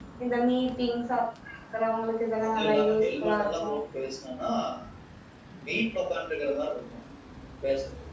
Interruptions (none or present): present